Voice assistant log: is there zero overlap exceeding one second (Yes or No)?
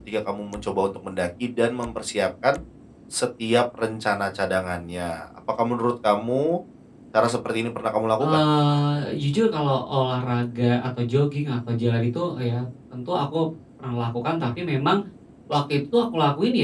Yes